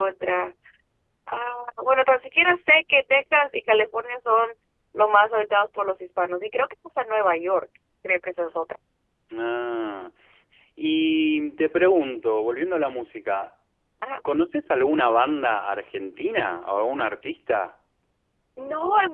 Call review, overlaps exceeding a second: none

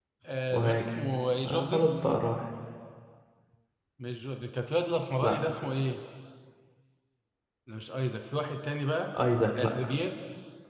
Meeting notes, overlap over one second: none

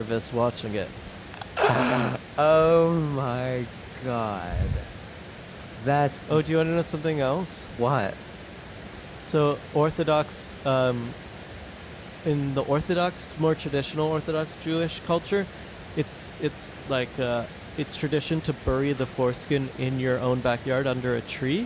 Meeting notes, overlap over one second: none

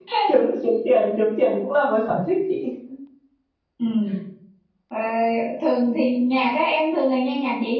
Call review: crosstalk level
none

